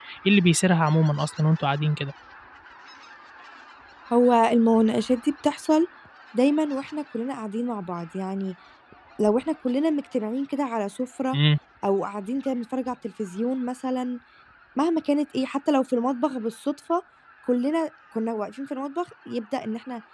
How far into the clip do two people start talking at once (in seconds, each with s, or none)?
none